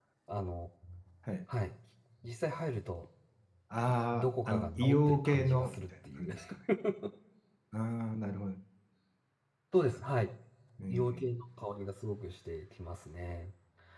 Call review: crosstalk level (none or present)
present